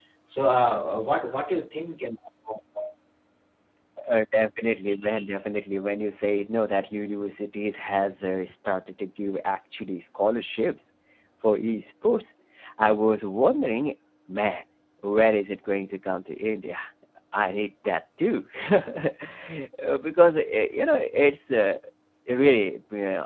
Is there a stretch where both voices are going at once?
No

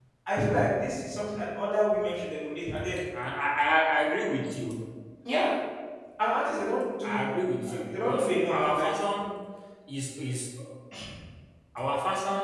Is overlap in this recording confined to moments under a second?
No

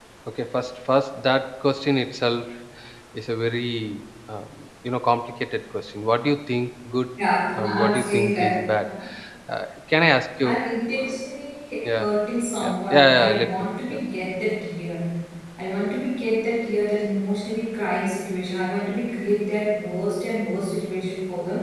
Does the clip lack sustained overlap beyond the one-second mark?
No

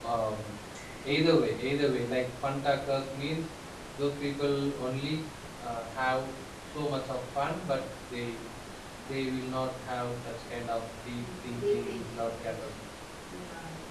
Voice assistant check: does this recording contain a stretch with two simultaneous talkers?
Yes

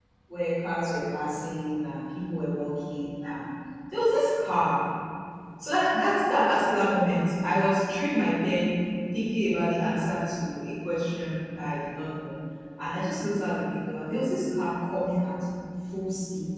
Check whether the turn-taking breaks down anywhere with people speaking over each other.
No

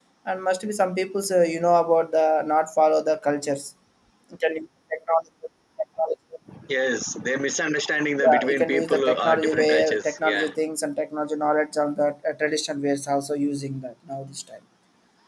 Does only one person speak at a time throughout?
No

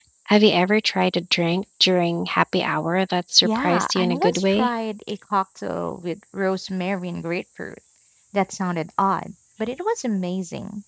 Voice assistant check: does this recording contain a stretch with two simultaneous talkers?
Yes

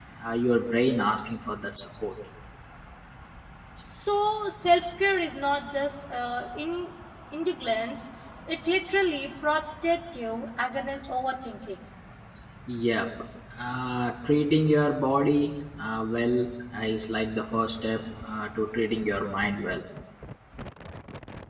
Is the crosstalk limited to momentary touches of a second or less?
Yes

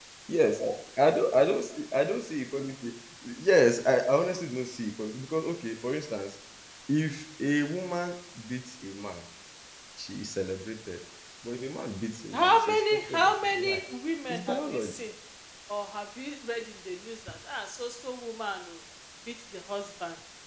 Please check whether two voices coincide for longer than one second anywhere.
Yes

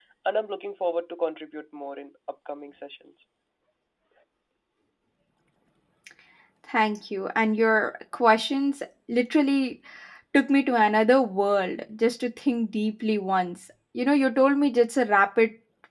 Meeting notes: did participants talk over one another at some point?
No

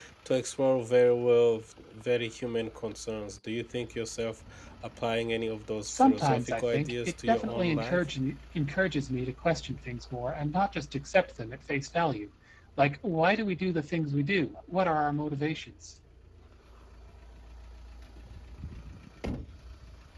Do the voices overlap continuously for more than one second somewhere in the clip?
Yes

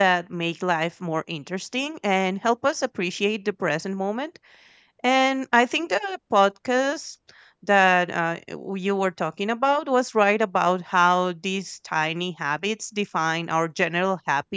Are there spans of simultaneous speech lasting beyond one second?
No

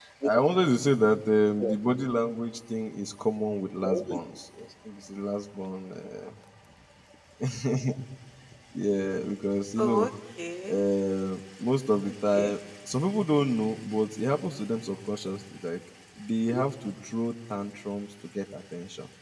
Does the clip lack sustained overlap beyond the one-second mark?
Yes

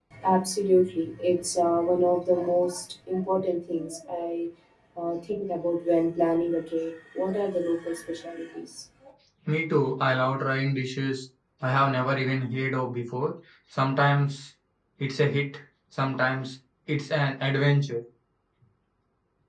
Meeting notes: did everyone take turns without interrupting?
Yes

